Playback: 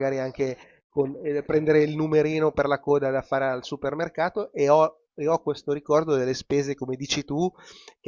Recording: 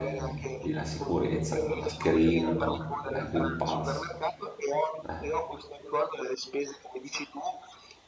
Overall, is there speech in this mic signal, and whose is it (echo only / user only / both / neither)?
both